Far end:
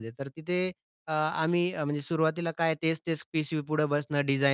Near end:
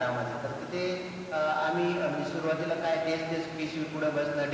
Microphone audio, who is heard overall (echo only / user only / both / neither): echo only